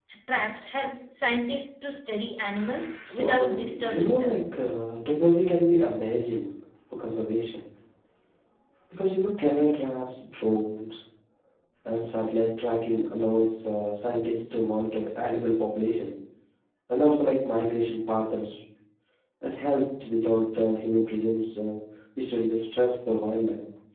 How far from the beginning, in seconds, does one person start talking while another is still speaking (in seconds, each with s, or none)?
3.0 s